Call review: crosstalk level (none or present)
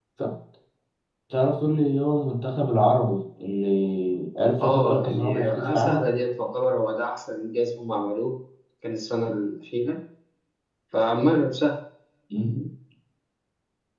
present